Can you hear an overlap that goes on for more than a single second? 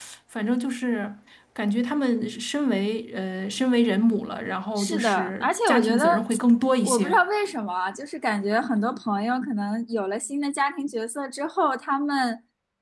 Yes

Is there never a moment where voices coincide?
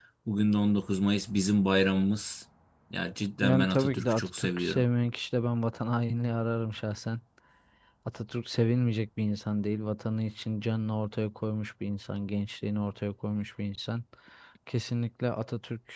No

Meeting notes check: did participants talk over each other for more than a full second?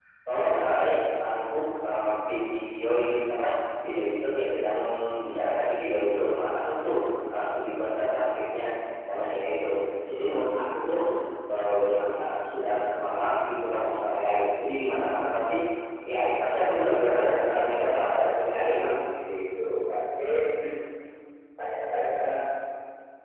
Yes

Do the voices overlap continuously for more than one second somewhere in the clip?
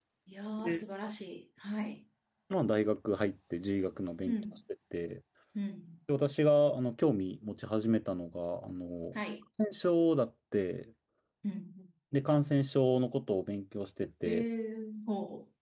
No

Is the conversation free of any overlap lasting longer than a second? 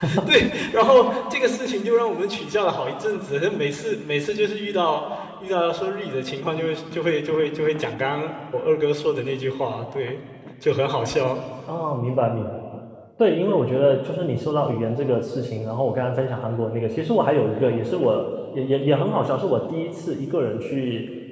Yes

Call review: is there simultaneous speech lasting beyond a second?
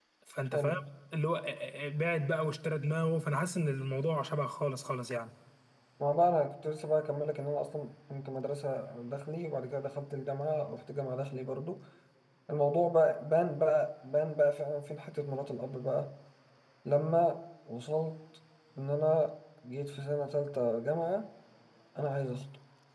No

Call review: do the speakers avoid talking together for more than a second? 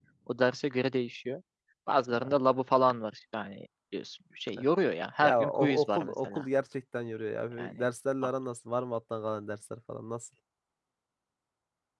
No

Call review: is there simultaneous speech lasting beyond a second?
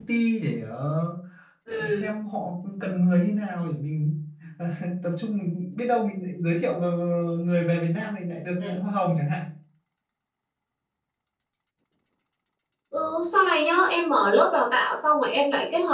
No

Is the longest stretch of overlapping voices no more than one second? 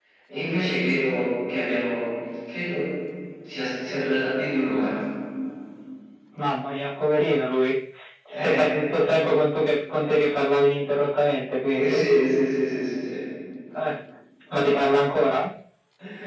Yes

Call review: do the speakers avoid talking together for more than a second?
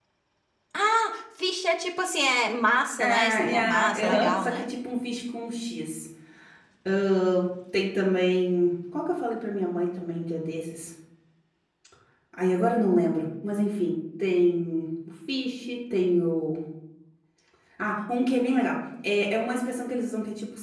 No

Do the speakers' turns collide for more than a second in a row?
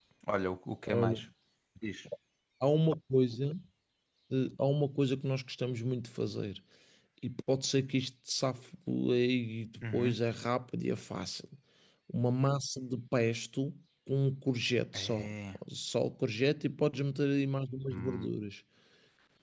No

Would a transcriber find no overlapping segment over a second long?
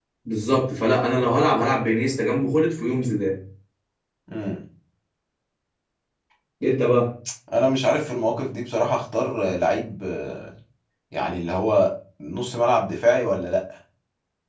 Yes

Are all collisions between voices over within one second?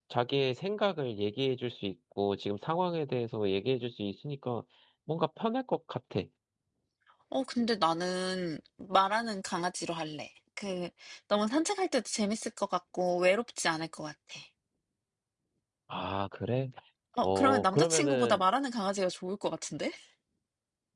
No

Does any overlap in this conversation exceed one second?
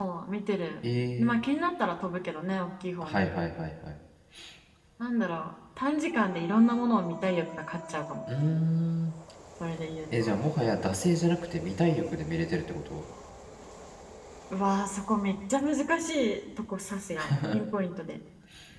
No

